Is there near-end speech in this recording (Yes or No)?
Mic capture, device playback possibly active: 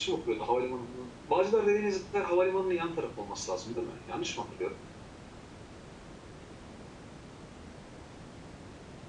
Yes